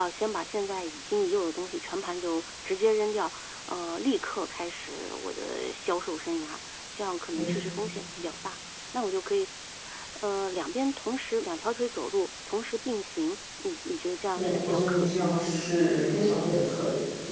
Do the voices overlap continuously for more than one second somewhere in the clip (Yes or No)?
Yes